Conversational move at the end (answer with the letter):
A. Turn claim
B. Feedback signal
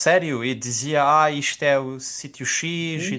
A